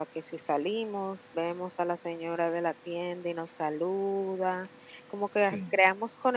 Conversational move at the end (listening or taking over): listening